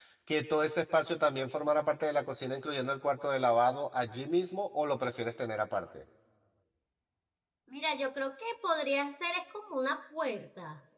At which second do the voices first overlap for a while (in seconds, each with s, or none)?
none